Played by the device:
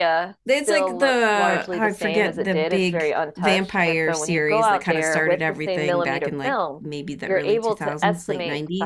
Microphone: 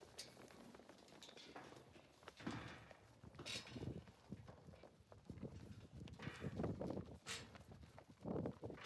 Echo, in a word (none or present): none